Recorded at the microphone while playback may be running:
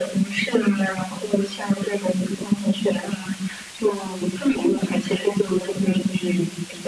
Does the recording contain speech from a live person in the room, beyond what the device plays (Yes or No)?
No